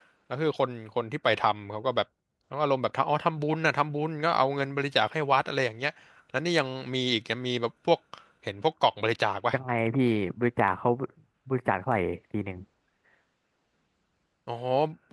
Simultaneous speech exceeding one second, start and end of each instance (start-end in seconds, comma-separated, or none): none